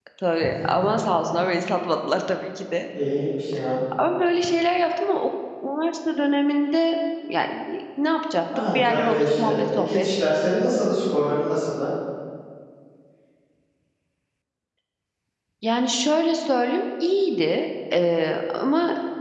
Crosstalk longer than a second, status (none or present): present